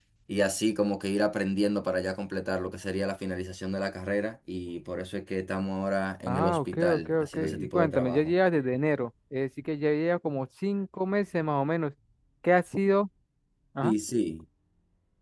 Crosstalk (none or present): present